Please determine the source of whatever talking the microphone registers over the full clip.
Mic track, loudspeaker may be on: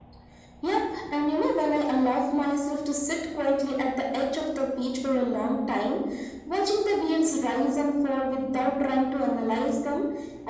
echo only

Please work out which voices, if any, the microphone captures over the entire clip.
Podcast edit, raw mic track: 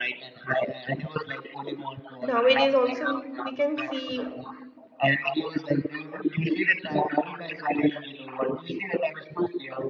both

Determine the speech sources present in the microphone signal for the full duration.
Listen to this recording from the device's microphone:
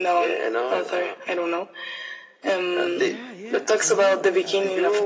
both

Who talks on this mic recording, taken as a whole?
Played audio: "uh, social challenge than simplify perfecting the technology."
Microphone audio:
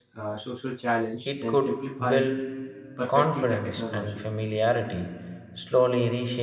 both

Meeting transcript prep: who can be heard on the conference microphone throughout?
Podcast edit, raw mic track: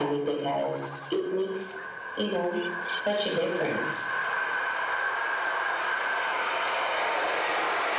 echo only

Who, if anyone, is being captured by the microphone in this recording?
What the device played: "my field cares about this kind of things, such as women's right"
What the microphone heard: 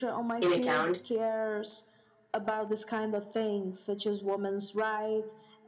both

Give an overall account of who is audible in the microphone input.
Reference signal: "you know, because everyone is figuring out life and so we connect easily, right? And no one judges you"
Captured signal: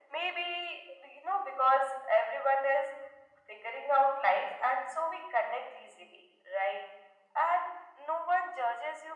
echo only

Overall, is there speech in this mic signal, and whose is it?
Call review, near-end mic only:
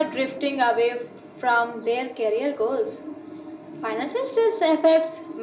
echo only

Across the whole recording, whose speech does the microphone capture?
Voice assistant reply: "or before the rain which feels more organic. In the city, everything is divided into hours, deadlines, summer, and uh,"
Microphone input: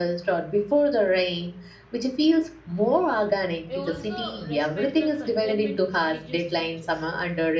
both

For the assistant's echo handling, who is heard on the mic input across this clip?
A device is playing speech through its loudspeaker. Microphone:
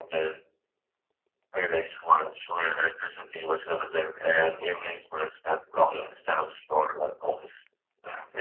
echo only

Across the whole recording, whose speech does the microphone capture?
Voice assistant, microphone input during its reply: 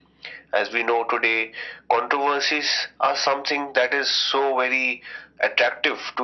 echo only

